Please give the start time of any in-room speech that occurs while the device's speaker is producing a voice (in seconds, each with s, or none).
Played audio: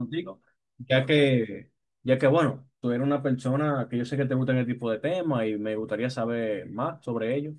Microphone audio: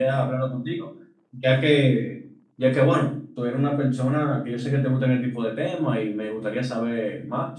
none